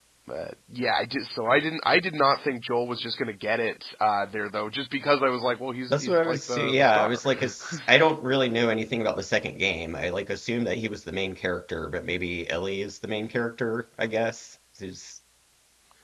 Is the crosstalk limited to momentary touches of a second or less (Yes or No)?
No